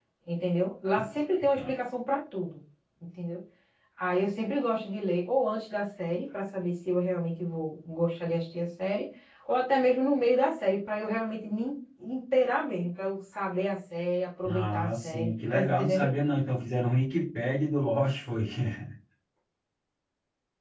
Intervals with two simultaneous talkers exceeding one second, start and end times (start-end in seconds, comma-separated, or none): 14.5-16.1